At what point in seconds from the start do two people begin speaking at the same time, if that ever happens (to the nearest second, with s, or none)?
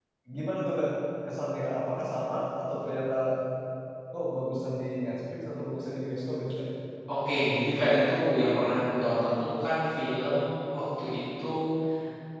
none